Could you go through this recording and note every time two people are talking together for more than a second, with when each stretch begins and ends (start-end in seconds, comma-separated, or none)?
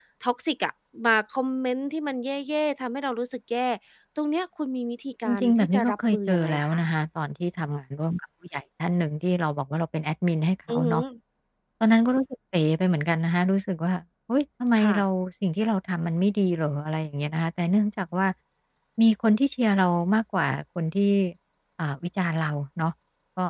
5.2-6.8